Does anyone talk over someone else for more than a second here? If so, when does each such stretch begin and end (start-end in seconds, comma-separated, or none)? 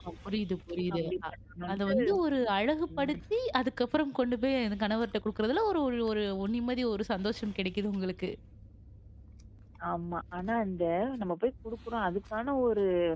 none